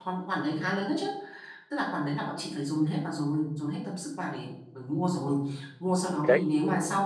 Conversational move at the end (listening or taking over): listening